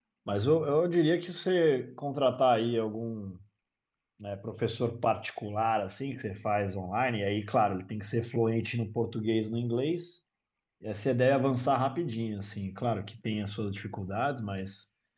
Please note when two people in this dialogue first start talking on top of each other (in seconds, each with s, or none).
none